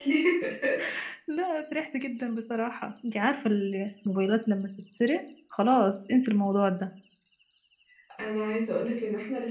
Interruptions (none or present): none